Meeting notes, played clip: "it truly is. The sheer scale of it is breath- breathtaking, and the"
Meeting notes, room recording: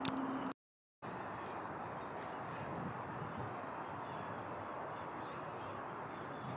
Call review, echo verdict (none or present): none